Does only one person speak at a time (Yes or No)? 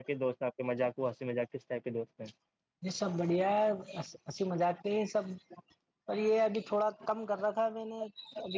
Yes